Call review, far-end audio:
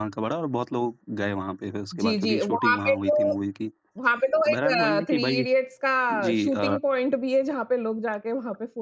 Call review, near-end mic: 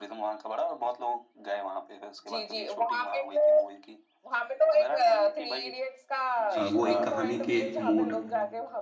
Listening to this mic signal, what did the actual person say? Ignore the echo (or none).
अ, वो एक कहानी के मूड,